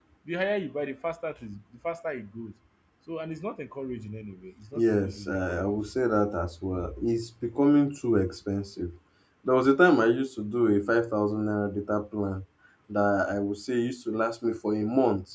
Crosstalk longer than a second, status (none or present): present